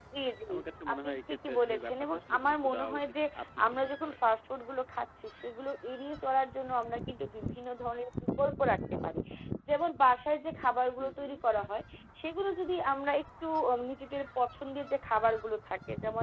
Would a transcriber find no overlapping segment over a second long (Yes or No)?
No